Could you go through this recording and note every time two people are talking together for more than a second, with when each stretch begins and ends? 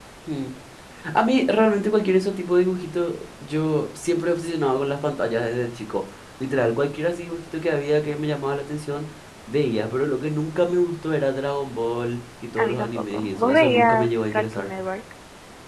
12.6-14.7

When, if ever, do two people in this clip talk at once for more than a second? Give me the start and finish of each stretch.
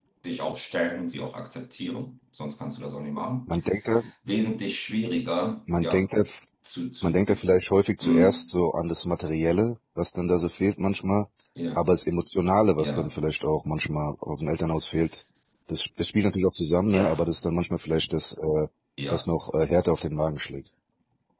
none

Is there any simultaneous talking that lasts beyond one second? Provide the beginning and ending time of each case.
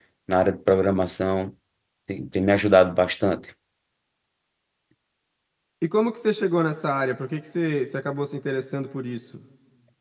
none

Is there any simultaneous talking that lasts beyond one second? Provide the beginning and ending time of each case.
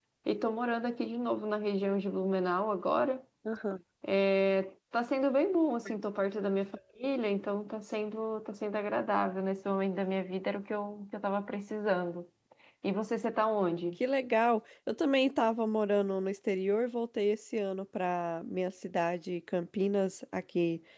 none

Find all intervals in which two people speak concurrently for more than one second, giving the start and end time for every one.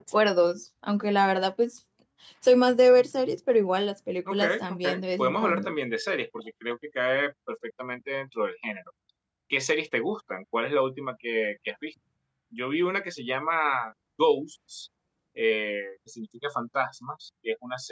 4.3-5.7

